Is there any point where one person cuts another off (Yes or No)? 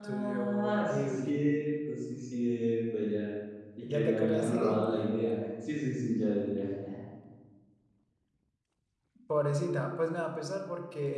Yes